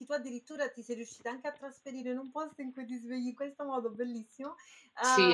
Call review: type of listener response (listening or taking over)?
taking over